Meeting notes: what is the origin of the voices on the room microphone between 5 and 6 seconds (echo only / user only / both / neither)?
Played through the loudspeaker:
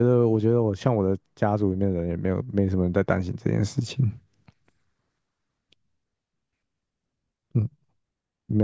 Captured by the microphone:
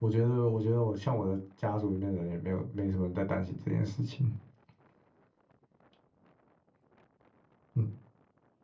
neither